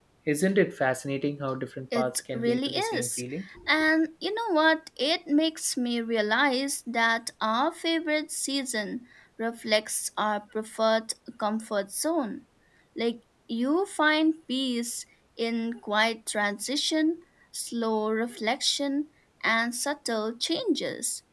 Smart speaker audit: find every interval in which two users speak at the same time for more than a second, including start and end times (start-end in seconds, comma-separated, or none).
2.0-3.2